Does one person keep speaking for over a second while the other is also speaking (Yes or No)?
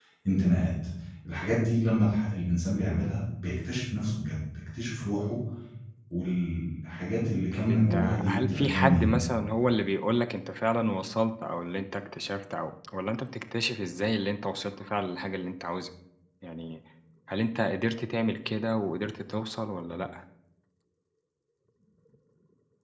Yes